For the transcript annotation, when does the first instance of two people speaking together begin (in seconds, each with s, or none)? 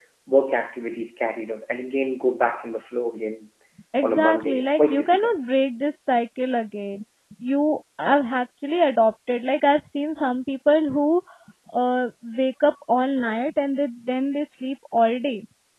4.0 s